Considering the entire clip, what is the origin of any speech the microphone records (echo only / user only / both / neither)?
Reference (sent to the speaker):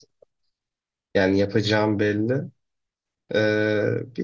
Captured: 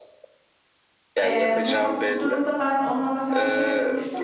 both